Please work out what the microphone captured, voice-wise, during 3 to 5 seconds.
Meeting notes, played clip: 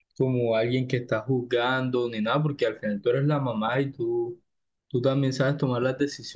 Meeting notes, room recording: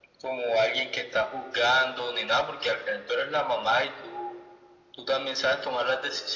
echo only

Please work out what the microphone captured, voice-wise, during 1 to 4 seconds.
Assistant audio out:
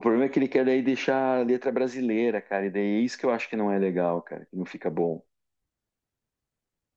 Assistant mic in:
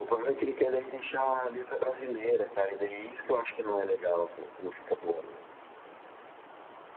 echo only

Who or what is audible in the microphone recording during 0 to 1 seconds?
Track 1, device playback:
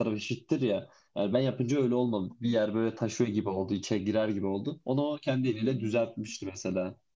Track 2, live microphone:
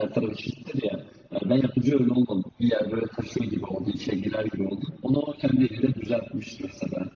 echo only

